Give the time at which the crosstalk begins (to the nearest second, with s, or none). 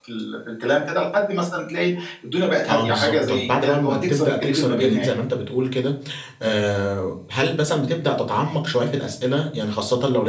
3 s